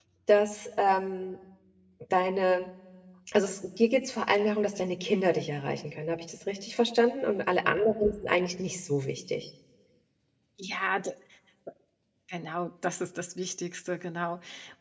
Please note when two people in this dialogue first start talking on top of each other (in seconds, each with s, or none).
none